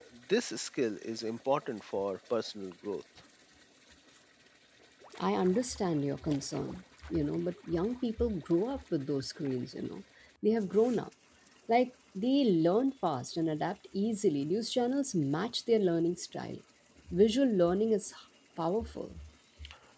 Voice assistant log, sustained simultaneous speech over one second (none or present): none